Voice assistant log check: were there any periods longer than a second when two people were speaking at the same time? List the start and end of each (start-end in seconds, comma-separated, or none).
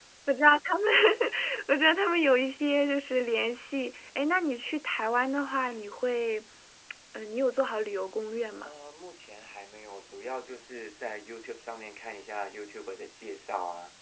none